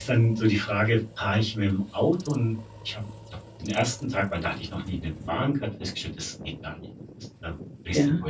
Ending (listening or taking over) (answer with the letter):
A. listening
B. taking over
A